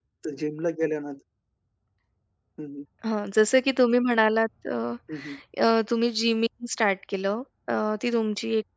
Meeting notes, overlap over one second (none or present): none